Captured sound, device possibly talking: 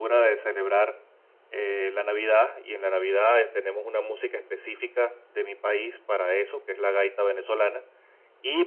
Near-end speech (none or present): none